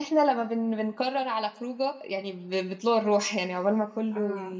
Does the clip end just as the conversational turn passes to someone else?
No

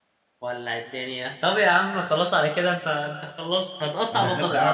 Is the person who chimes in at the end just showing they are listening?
No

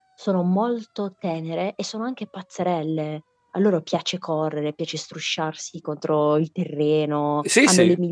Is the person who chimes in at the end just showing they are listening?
Yes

